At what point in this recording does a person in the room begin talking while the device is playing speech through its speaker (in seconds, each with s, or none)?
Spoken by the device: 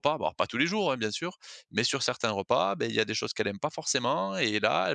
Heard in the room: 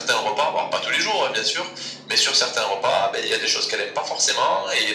none